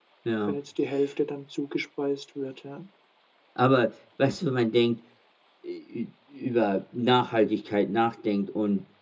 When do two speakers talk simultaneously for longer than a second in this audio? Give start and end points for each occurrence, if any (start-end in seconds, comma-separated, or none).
none